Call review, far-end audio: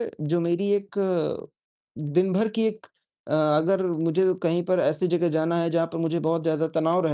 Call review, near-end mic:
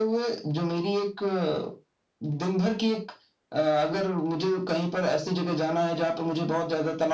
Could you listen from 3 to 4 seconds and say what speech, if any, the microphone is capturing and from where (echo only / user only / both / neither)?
echo only